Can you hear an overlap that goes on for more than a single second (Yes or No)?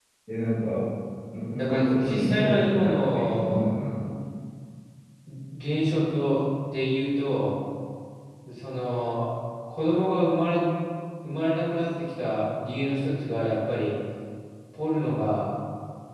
Yes